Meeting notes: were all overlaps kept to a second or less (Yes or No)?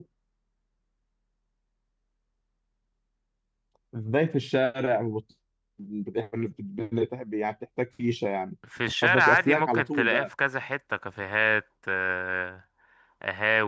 No